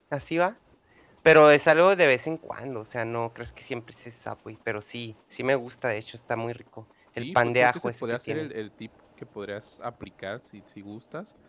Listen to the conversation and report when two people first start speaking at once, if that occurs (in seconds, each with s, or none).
7.2 s